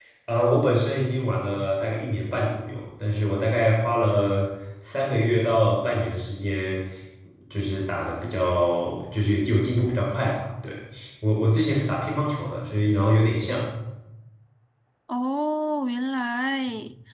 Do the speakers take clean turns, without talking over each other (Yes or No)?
Yes